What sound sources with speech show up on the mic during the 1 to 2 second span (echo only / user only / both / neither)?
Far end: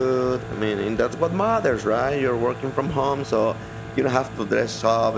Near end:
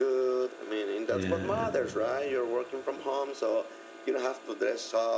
both